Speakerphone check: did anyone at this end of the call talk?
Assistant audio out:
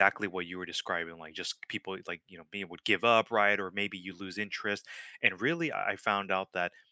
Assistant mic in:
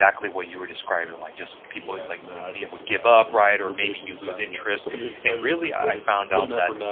Yes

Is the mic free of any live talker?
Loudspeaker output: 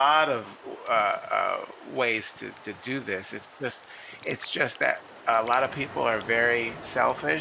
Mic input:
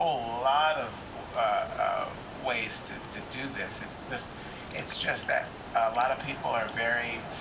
Yes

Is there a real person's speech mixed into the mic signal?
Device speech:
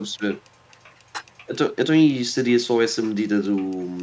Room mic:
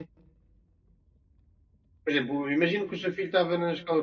Yes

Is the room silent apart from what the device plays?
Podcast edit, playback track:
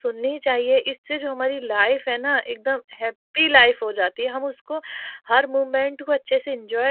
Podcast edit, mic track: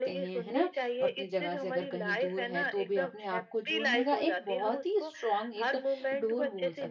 No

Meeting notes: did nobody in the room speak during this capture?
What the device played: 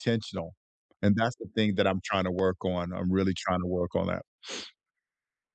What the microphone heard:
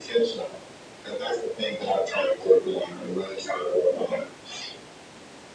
Yes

